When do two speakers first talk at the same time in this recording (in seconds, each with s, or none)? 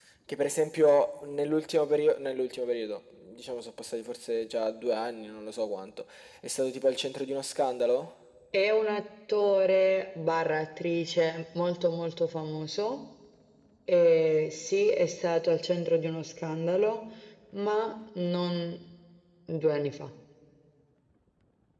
none